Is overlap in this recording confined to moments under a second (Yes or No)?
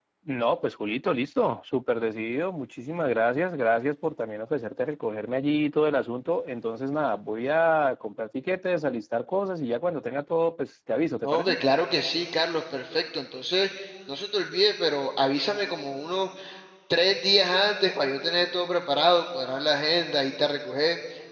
Yes